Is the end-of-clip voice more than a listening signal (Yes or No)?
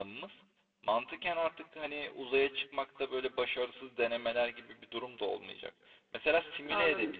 No